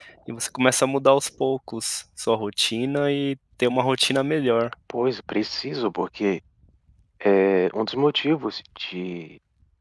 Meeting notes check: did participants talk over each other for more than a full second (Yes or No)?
No